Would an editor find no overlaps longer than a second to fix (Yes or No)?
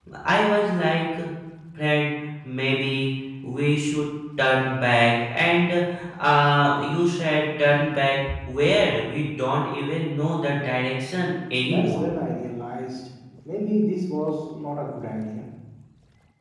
Yes